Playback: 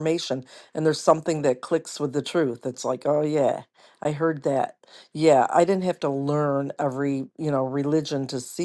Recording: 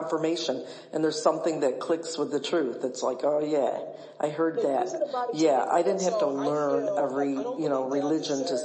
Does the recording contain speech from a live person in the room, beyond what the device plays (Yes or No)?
Yes